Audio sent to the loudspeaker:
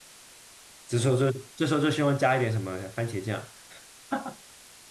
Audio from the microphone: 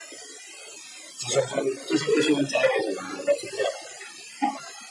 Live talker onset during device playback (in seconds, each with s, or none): none